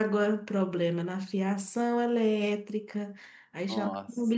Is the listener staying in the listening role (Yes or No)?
Yes